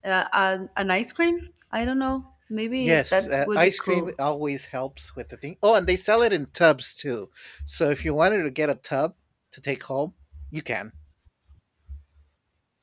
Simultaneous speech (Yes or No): Yes